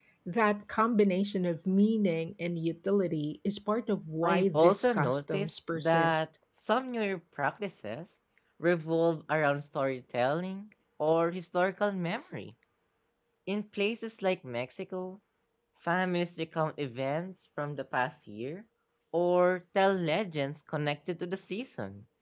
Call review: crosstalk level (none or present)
present